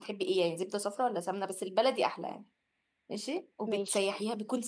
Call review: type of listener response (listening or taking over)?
listening